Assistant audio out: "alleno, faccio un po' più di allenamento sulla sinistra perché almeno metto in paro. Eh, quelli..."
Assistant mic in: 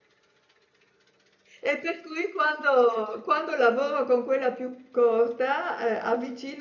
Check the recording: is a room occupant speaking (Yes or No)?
Yes